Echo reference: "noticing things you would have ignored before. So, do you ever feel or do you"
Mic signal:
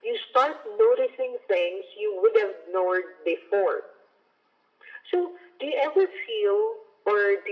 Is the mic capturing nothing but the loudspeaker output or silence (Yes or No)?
Yes